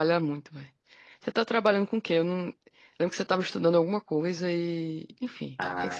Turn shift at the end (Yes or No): Yes